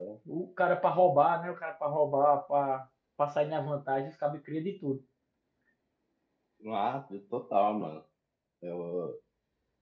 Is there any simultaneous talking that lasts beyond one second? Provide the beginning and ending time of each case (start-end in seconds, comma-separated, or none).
none